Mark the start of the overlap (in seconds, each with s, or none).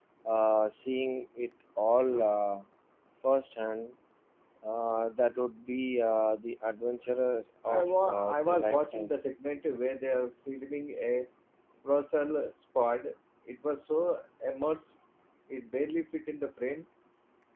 7.7 s